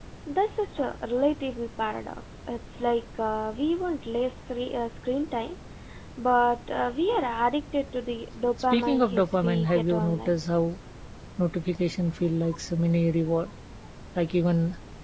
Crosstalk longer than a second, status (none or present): present